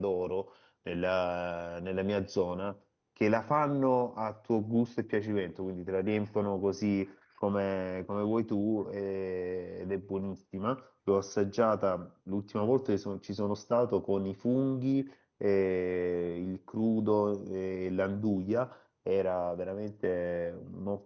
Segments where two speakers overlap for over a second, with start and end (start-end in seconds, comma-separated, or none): none